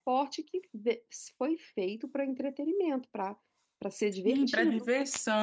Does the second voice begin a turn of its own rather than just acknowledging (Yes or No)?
Yes